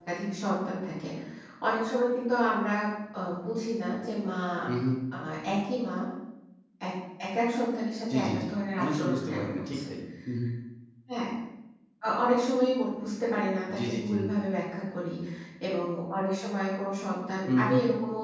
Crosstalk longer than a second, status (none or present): present